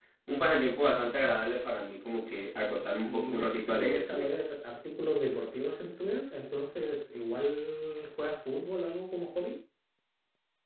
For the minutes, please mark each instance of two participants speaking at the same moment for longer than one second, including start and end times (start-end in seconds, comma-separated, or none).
3.0-4.3